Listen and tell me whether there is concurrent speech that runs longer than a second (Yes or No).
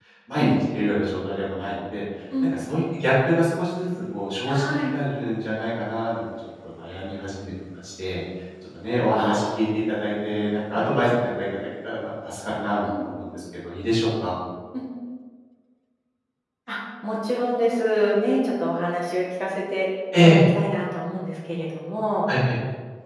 No